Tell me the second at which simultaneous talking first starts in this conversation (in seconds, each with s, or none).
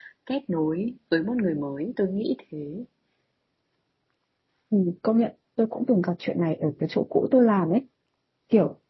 none